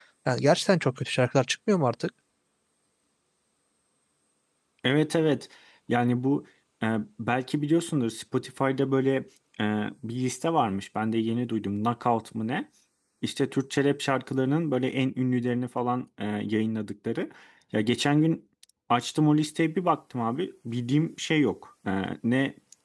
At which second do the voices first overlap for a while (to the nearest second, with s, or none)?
none